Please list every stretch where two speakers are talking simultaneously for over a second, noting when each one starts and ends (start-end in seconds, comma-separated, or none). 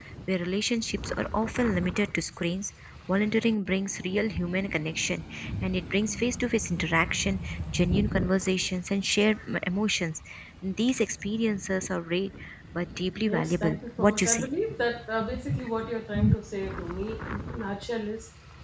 13.3-14.5